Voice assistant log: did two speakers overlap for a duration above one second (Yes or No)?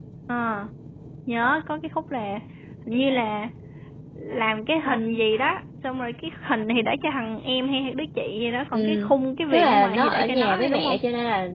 Yes